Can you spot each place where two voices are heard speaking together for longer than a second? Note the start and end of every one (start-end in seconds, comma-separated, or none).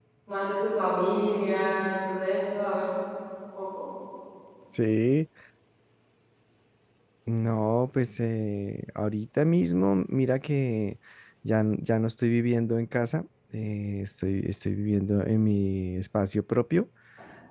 none